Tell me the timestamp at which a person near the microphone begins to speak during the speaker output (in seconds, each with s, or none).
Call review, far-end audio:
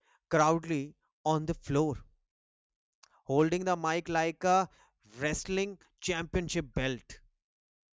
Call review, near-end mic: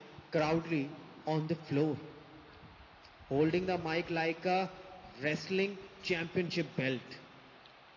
none